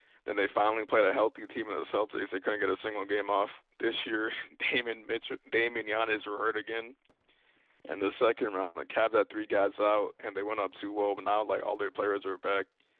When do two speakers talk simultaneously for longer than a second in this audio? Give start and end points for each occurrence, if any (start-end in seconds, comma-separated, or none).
none